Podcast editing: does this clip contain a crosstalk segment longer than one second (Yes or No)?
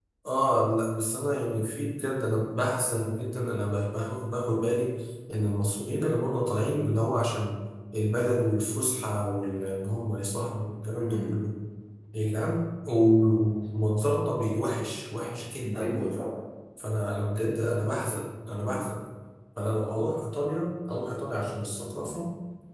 No